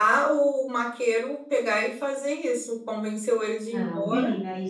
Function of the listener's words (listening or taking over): taking over